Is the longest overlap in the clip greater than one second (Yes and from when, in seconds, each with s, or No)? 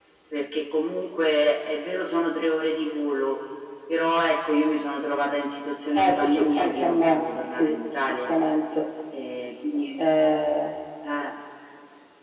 Yes, from 6.0 s